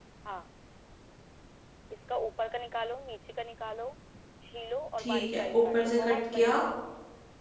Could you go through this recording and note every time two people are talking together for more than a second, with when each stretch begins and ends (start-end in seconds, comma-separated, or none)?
5.0-6.5